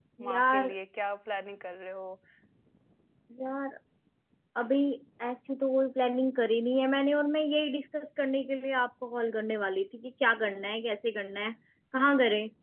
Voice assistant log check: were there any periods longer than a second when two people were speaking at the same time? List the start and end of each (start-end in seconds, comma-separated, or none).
none